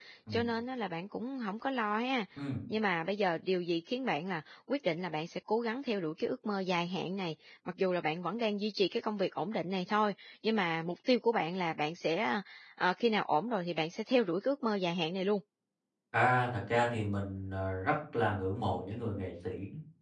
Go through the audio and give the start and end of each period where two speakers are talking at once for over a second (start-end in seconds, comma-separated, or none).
none